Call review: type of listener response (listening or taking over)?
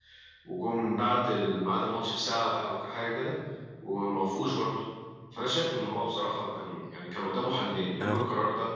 listening